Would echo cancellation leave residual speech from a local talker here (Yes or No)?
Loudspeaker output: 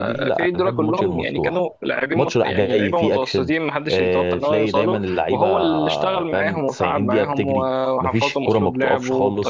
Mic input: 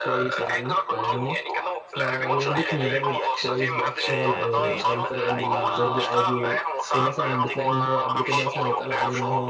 Yes